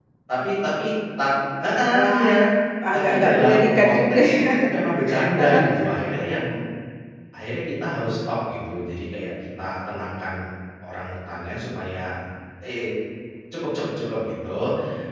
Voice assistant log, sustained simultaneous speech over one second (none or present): present